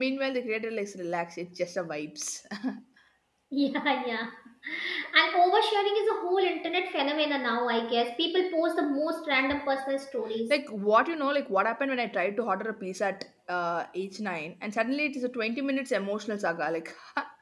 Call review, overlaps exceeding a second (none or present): none